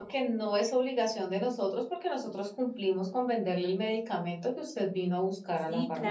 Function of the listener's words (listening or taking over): taking over